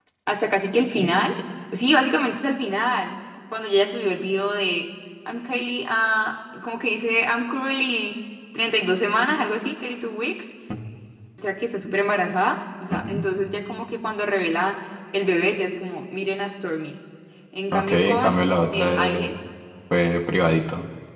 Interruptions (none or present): present